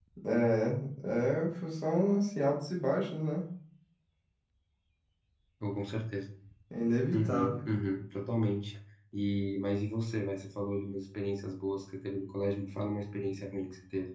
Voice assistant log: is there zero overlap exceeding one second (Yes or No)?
Yes